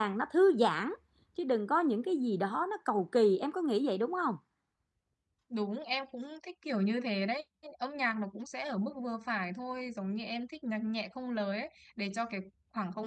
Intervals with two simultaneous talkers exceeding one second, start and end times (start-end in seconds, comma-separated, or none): none